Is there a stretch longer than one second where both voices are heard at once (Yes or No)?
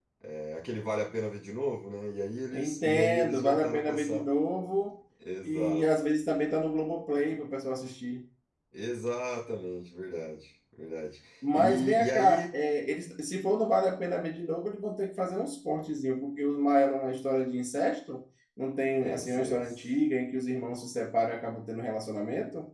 Yes